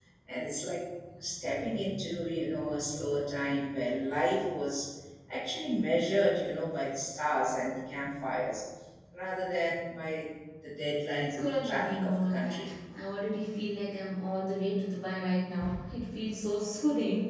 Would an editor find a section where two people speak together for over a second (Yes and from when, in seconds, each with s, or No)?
Yes, from 11.4 s